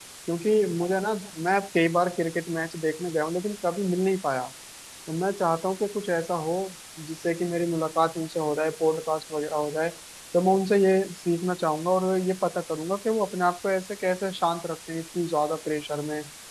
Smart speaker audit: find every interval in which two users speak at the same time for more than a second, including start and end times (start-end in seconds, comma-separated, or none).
none